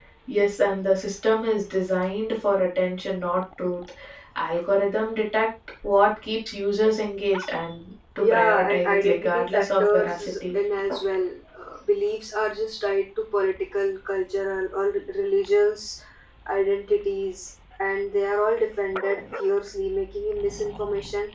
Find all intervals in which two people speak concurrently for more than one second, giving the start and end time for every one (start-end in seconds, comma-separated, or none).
8.2-10.5